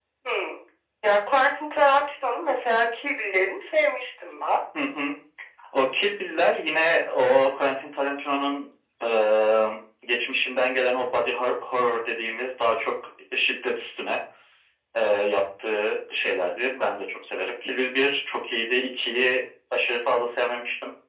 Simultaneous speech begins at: none

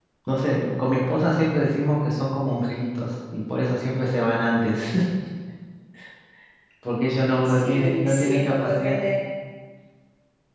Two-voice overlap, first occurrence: 7.5 s

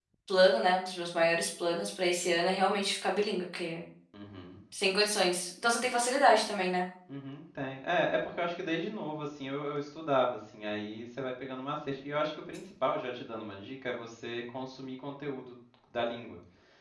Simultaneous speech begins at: none

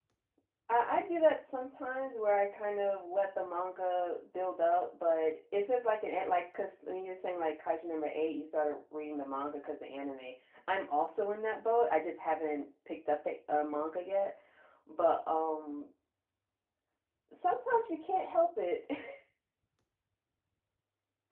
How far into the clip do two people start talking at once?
none

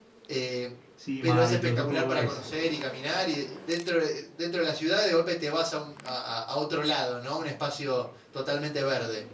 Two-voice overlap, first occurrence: 1.2 s

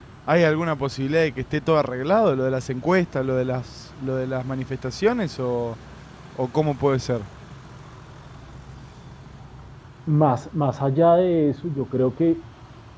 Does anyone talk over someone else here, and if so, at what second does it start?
none

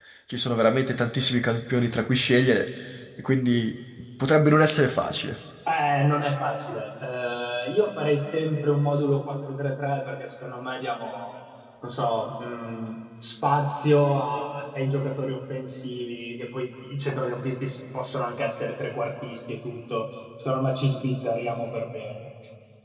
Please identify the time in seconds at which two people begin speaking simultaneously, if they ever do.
none

